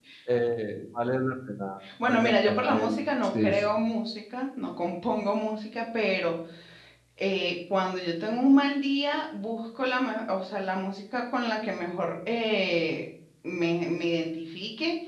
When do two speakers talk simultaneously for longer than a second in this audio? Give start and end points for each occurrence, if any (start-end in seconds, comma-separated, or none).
2.0-3.5